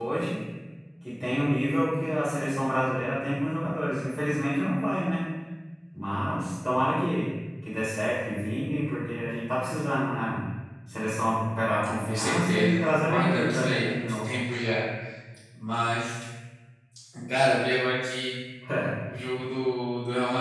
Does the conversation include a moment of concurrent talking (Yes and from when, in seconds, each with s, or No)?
Yes, from 12.0 s